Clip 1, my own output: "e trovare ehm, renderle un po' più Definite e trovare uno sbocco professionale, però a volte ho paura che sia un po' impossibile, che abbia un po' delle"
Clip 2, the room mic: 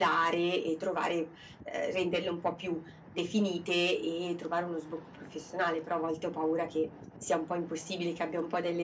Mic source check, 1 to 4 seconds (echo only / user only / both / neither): echo only